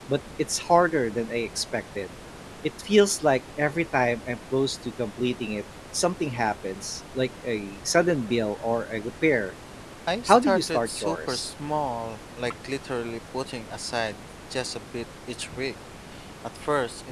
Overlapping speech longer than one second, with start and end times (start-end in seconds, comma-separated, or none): 10.3-11.5